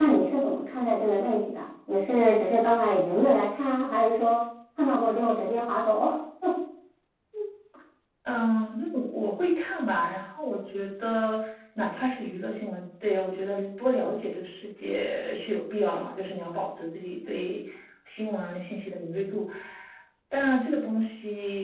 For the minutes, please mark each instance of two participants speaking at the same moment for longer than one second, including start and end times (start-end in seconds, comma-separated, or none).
none